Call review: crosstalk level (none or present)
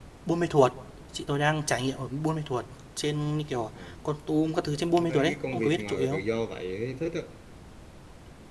present